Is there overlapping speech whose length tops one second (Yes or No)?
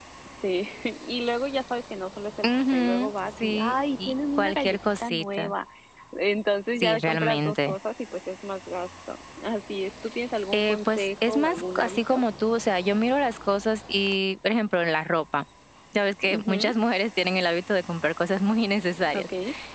Yes